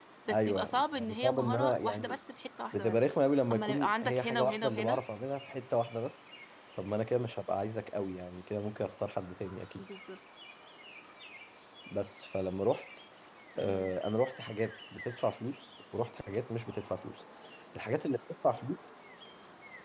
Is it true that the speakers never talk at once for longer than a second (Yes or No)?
No